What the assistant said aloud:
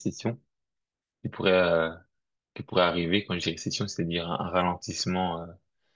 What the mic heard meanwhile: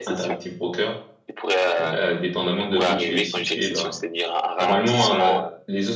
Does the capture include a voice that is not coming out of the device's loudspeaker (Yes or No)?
Yes